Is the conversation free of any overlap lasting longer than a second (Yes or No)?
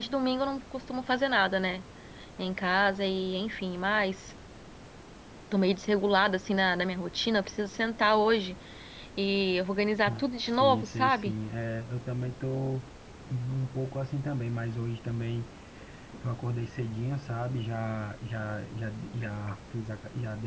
No